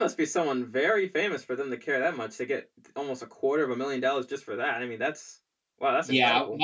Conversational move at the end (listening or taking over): taking over